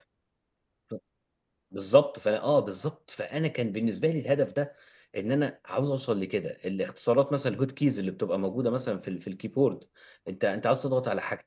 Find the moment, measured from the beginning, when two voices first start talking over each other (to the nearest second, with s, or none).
none